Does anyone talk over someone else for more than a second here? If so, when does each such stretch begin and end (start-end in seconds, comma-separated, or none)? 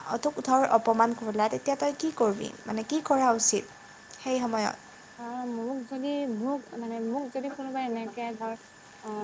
none